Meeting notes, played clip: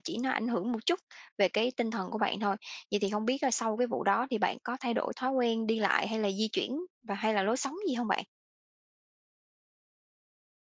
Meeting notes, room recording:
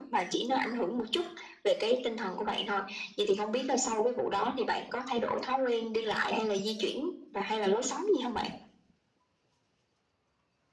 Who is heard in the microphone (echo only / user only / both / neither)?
echo only